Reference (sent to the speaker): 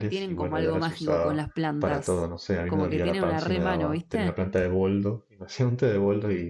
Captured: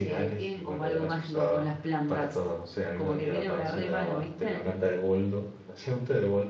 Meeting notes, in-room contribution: none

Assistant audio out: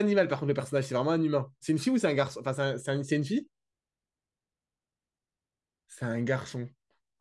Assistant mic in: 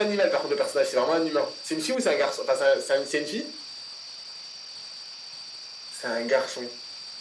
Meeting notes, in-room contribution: none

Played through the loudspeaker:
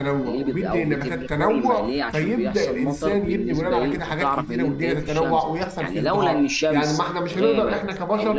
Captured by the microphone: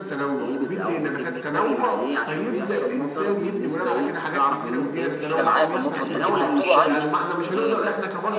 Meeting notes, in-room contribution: present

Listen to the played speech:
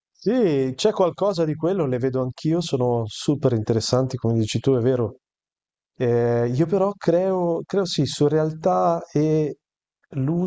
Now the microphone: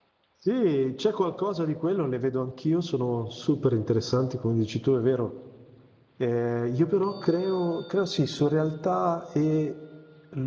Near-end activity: none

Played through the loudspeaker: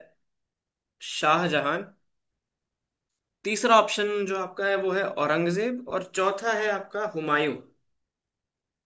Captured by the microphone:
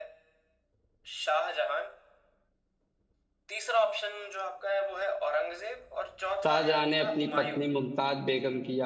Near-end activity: present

